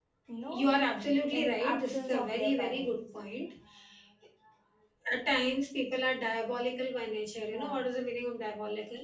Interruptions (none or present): present